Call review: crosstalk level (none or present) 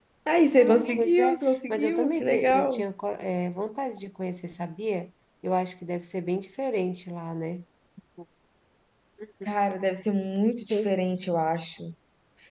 present